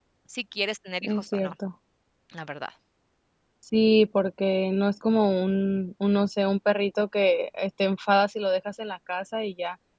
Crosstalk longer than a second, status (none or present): none